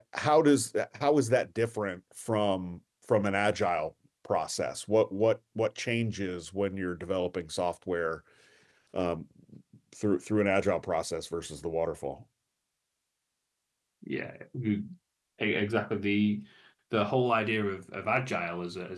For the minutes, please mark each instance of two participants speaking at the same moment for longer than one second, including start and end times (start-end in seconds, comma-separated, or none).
none